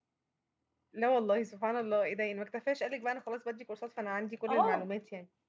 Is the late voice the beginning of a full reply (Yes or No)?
Yes